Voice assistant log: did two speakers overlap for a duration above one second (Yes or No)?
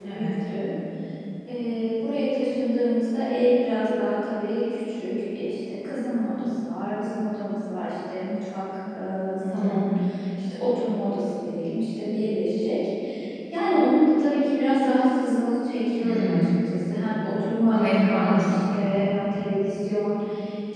Yes